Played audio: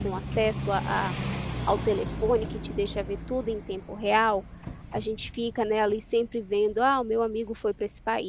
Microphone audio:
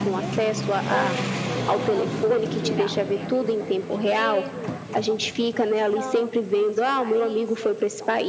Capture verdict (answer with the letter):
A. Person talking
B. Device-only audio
A